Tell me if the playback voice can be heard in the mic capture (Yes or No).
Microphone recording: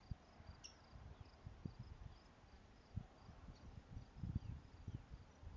No